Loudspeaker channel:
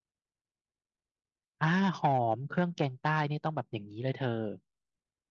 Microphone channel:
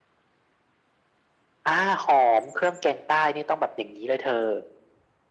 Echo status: present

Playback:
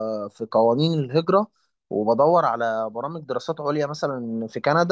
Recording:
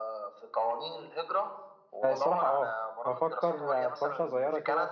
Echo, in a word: present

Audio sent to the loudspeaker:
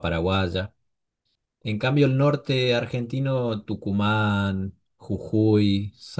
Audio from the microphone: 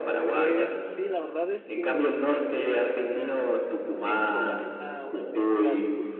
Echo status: present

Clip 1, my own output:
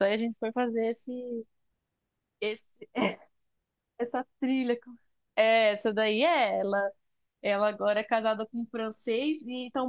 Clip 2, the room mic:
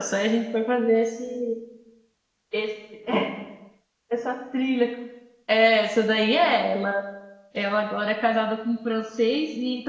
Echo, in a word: present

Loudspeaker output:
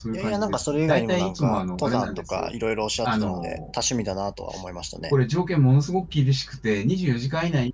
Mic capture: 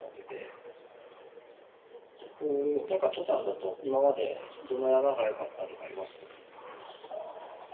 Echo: none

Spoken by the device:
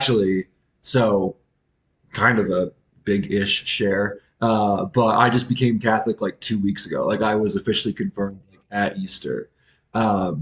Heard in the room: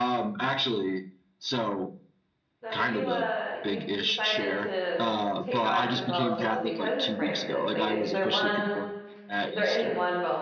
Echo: present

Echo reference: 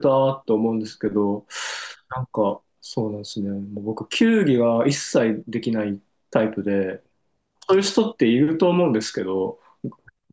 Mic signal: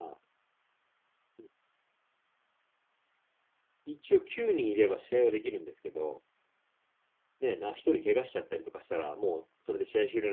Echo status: none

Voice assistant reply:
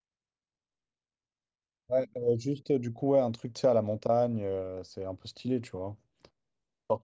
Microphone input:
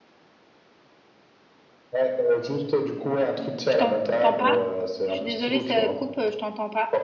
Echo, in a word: present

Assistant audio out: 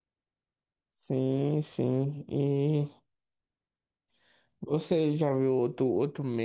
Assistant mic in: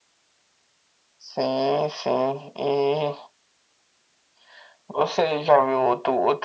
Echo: present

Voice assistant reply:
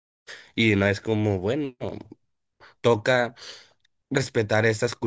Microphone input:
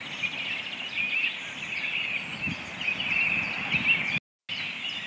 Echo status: none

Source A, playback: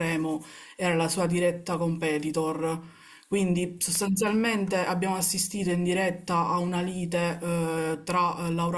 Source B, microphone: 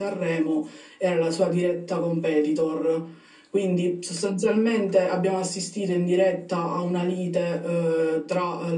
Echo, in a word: present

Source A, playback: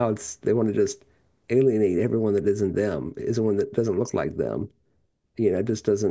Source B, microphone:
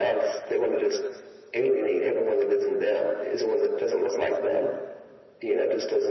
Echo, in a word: present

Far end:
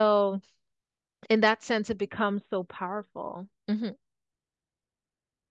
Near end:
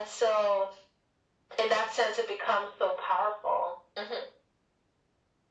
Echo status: present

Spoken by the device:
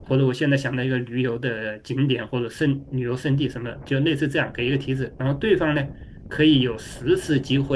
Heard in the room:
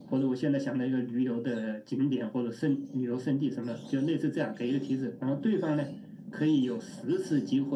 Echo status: present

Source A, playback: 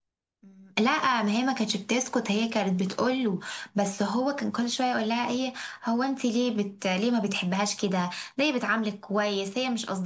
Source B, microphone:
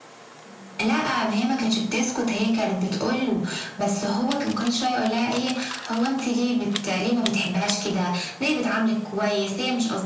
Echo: present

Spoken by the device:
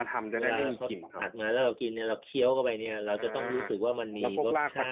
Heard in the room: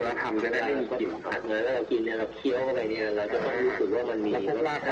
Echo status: present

